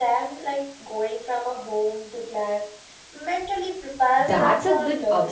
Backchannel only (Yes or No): No